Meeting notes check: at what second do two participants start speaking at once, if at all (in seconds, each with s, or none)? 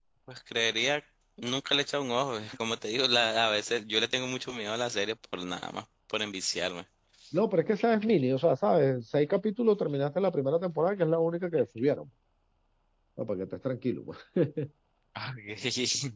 none